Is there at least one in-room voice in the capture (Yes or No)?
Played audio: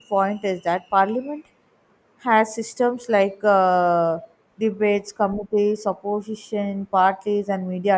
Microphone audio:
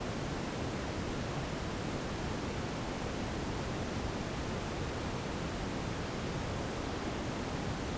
No